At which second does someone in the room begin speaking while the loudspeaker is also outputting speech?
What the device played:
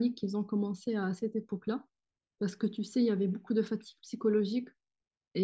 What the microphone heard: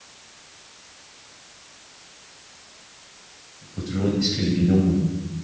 4 s

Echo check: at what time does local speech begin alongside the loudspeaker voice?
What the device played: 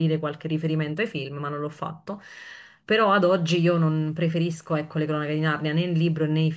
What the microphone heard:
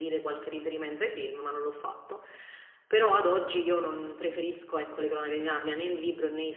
none

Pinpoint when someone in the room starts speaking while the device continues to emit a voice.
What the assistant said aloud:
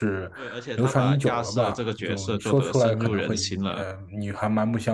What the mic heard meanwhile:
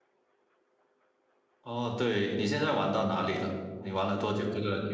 2 s

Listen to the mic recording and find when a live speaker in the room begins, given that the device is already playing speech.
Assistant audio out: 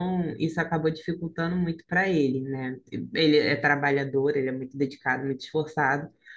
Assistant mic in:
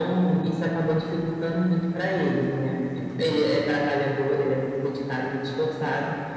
none

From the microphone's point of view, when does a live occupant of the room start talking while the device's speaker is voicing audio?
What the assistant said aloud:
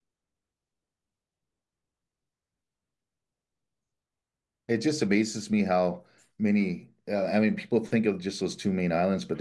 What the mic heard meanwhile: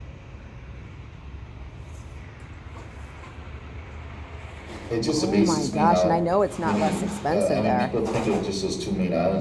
5 s

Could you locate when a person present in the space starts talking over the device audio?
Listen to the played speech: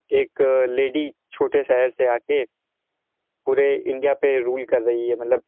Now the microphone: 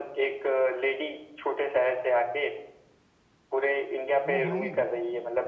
4 s

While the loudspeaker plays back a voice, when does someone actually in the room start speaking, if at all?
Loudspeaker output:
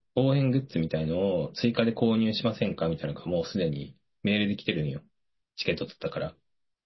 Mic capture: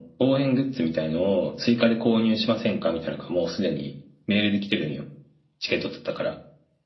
none

